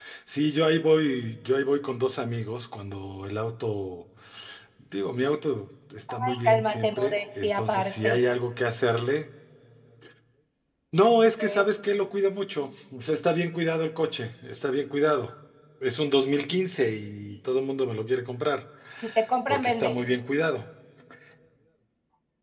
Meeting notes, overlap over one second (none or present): present